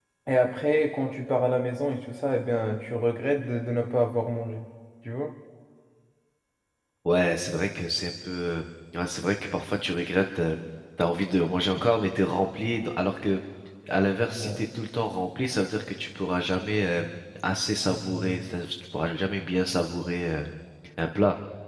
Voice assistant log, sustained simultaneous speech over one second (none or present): none